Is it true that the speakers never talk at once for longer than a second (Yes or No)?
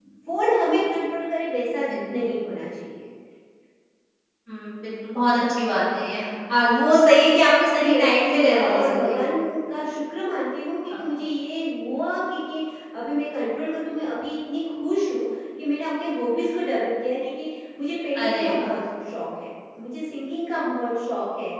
No